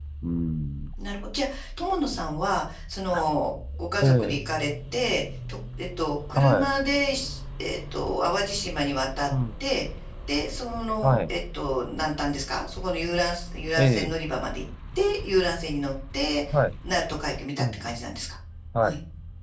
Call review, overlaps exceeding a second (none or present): none